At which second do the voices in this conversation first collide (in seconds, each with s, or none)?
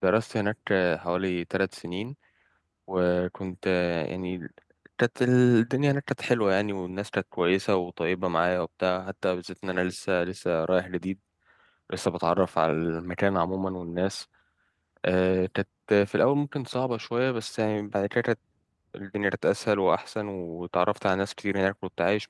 none